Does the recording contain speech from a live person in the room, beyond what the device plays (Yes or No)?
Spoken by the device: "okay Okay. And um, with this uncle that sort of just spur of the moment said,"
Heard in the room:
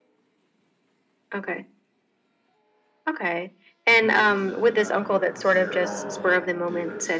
Yes